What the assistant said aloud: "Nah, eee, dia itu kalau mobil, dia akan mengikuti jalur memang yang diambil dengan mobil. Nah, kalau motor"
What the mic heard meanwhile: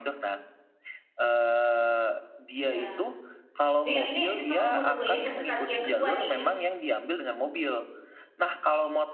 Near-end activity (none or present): present